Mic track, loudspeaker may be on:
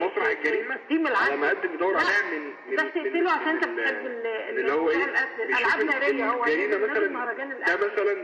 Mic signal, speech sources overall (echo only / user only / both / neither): echo only